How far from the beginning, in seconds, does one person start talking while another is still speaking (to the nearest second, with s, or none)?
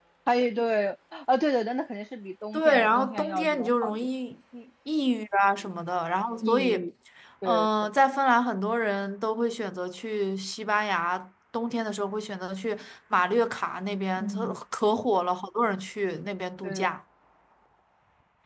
3 s